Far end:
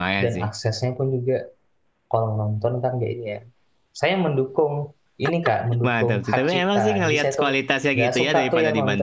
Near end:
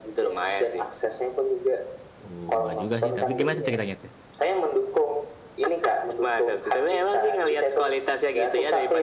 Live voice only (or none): Oh, enggak juga sih. Tapi gimana tuh ceritanya tuh?